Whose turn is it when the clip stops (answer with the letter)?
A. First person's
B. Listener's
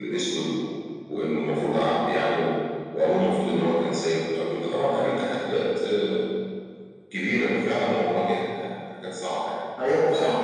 B